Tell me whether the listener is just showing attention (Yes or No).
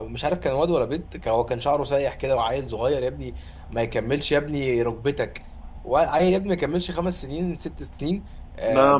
Yes